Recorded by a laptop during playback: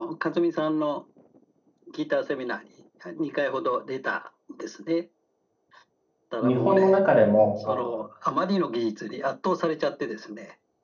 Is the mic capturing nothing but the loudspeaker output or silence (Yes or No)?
No